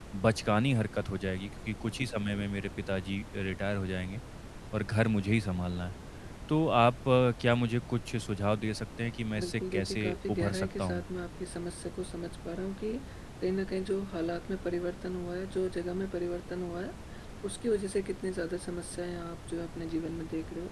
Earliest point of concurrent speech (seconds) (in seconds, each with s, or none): 9.4 s